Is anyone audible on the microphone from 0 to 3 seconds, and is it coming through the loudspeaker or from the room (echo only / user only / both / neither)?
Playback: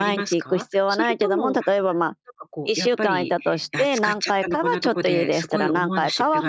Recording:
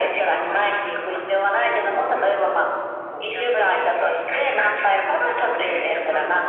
echo only